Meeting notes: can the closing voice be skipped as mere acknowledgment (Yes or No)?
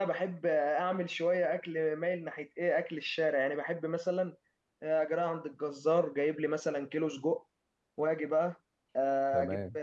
Yes